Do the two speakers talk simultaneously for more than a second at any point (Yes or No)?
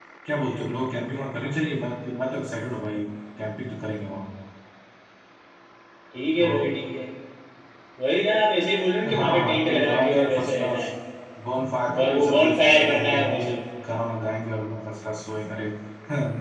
Yes